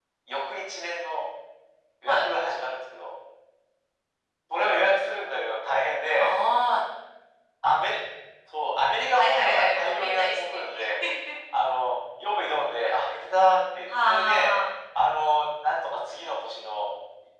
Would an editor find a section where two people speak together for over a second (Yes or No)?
Yes